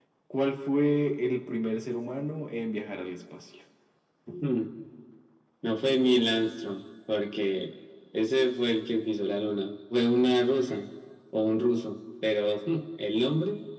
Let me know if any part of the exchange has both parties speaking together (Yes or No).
No